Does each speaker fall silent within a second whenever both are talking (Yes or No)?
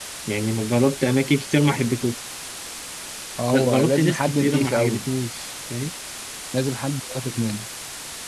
No